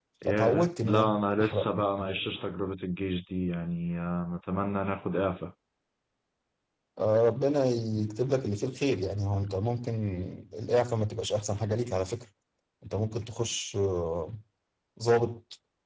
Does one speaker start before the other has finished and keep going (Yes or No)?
Yes